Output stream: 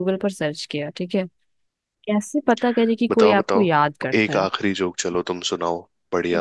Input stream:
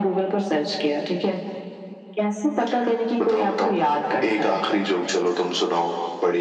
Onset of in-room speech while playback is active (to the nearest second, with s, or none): none